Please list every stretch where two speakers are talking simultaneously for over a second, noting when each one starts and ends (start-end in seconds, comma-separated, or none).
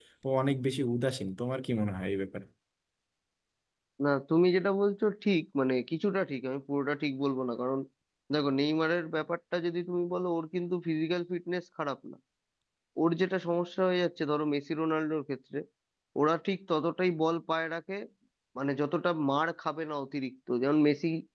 none